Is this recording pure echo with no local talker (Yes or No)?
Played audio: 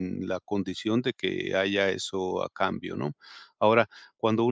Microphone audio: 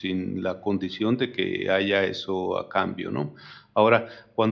Yes